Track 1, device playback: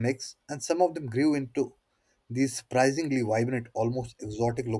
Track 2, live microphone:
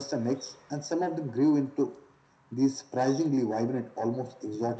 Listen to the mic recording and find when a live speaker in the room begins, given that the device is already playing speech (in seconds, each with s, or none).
none